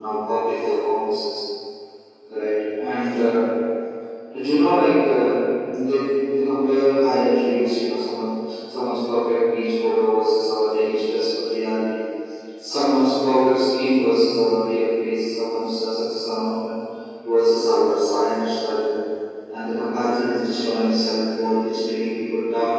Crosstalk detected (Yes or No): No